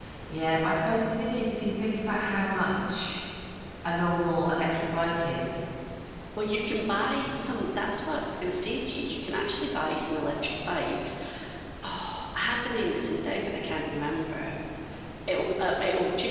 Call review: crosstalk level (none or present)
none